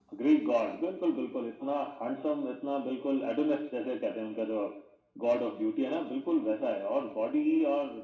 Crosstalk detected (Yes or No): No